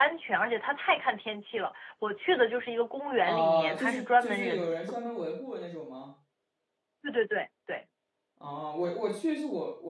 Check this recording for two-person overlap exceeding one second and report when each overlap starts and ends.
3.2-4.7

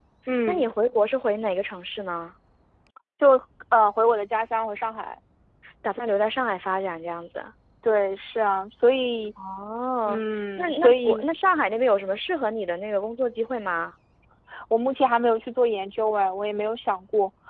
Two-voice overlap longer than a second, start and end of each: 10.1-11.3

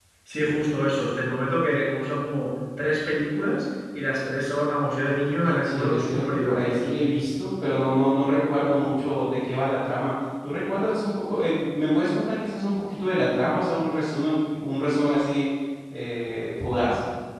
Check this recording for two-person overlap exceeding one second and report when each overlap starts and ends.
5.1-6.9

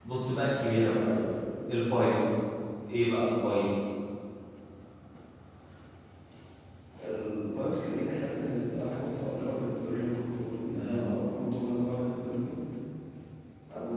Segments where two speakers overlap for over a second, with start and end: none

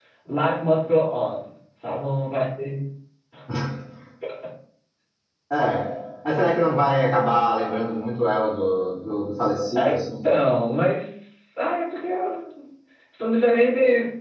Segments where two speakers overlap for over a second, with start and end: none

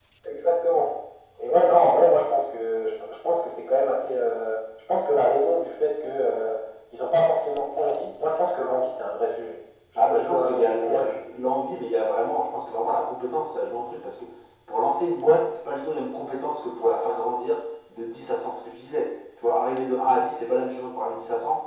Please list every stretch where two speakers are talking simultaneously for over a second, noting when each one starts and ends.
10.0-11.2

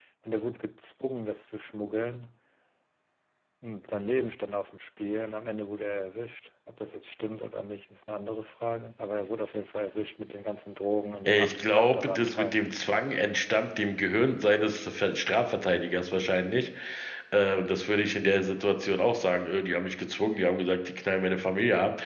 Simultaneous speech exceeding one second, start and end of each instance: 11.3-12.6

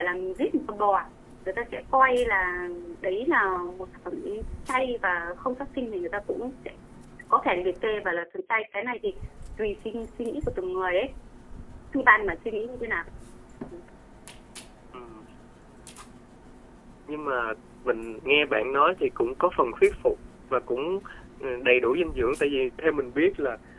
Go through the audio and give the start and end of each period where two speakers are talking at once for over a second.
none

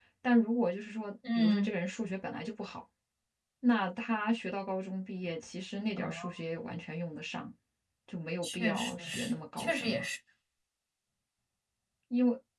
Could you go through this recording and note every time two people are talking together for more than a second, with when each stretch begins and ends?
8.4-10.1

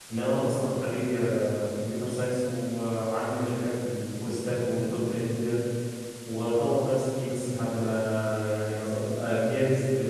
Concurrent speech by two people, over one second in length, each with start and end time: none

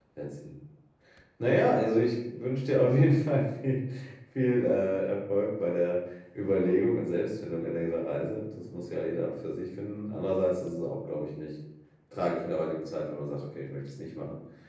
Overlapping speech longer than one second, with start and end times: none

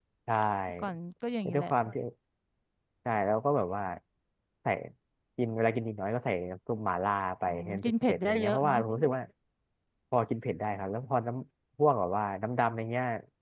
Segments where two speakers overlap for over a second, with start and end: 7.5-8.8

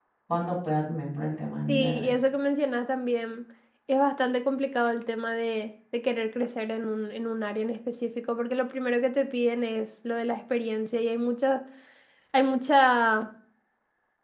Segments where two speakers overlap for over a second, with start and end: none

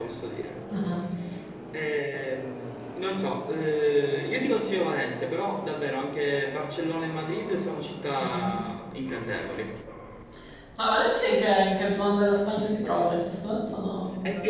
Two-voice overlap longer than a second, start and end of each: none

